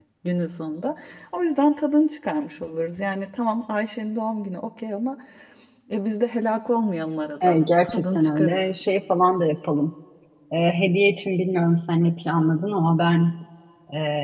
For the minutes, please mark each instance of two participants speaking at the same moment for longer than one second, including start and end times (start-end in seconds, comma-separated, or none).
7.4-8.8